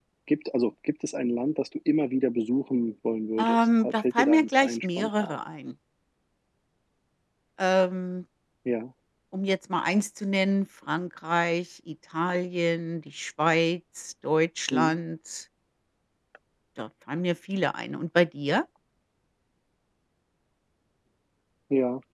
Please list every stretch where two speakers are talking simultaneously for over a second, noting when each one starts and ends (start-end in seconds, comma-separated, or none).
3.4-5.4